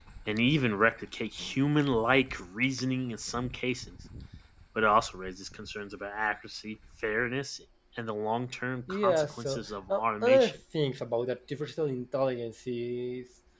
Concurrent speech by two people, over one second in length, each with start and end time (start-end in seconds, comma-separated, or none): 8.9-10.6